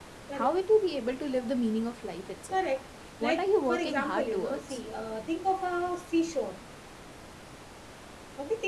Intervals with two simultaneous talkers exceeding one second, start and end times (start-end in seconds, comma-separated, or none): 3.2-4.8